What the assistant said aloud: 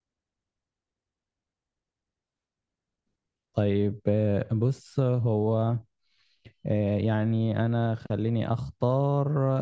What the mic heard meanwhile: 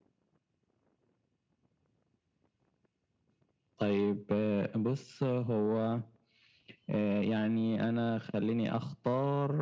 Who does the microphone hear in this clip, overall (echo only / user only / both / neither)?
echo only